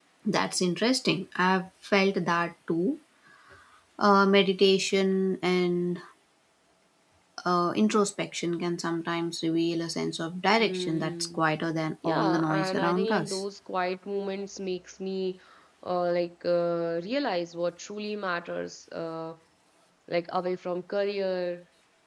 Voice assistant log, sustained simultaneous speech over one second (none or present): present